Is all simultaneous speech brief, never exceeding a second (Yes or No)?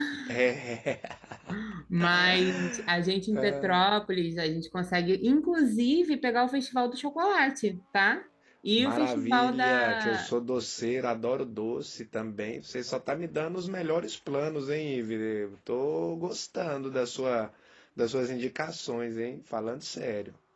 No